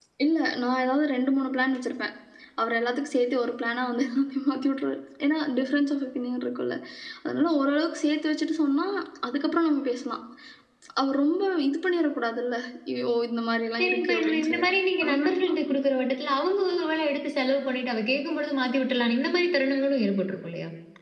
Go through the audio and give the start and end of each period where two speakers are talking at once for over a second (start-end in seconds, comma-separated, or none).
13.8-15.5